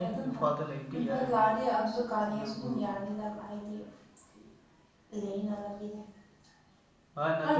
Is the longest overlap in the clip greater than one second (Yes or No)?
No